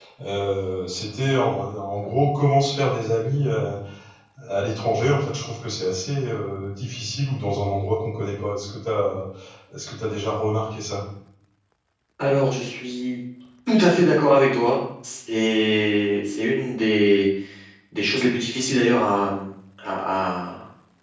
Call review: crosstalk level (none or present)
none